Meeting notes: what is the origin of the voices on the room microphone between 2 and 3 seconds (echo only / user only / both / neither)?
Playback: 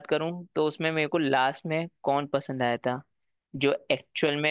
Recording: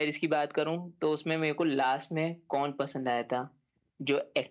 echo only